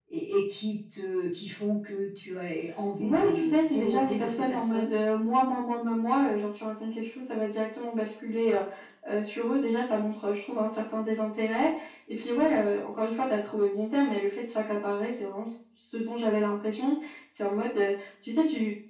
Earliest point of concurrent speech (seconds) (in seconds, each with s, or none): 3.0 s